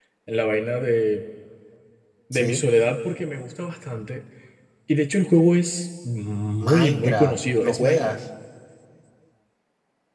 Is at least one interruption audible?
Yes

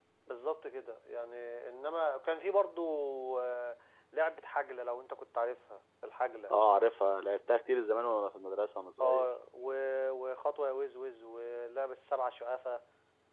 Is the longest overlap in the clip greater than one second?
No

